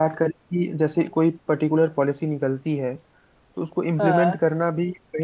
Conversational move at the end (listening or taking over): listening